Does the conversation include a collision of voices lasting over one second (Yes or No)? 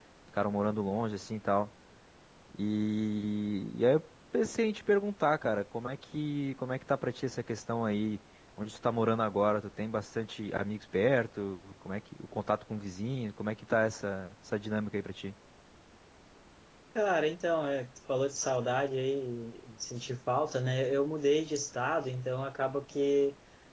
No